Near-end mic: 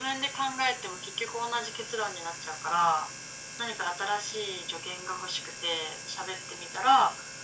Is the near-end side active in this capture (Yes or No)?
No